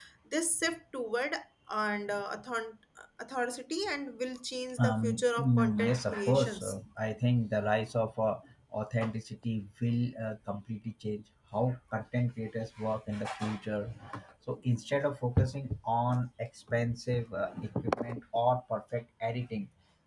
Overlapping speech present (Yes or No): Yes